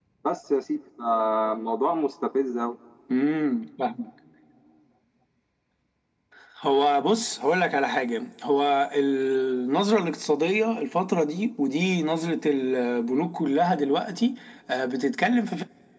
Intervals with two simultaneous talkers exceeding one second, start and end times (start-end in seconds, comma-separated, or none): none